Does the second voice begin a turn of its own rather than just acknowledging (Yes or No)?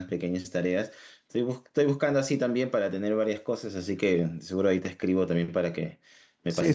Yes